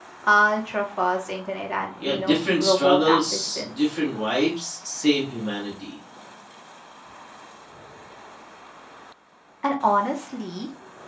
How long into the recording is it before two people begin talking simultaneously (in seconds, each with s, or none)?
2.0 s